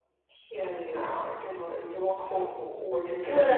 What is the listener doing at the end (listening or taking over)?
taking over